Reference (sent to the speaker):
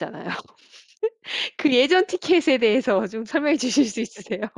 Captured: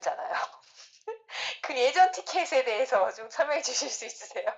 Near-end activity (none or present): none